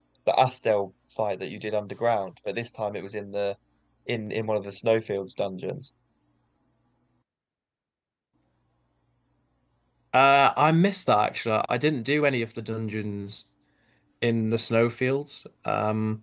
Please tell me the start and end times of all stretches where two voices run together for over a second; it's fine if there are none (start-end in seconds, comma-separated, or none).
none